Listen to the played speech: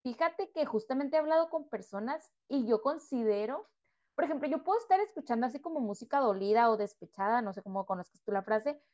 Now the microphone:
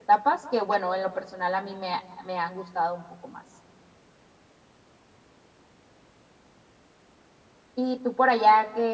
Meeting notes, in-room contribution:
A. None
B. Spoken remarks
B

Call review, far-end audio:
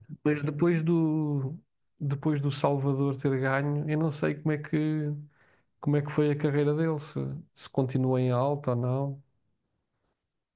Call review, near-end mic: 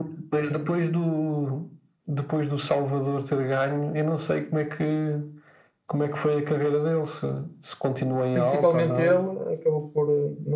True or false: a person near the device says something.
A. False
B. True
B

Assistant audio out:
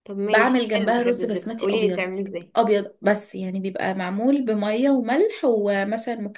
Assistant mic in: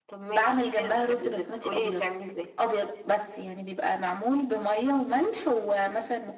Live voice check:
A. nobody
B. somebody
A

